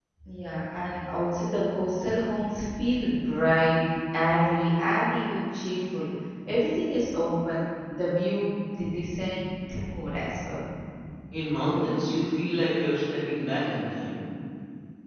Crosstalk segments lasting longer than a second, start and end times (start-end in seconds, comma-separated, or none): none